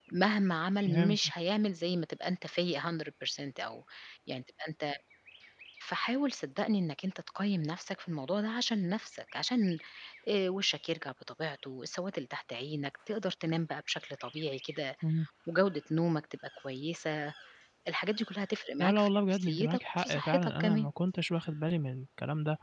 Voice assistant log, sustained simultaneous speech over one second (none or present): present